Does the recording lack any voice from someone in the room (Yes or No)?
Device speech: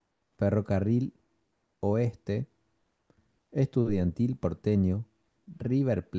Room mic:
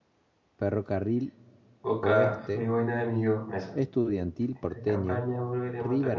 No